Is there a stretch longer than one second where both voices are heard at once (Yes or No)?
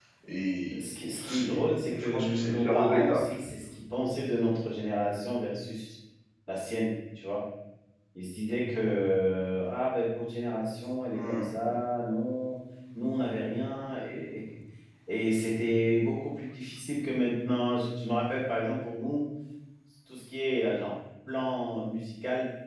Yes